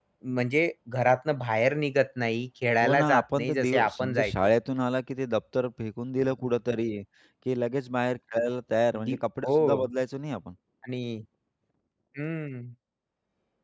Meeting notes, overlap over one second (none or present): present